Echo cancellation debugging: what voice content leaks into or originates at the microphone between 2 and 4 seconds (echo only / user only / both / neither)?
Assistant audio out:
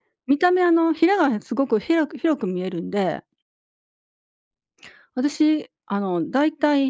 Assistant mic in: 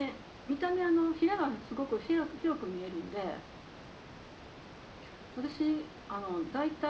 echo only